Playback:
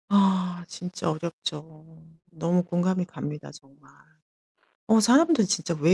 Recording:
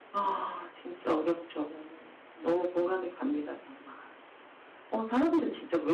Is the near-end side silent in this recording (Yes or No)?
Yes